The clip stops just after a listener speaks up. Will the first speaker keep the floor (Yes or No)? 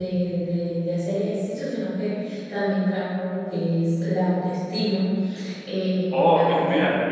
No